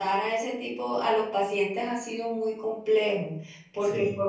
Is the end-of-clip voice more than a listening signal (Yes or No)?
No